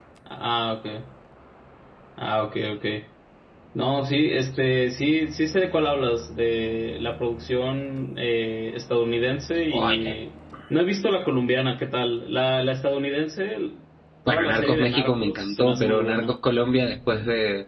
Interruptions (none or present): present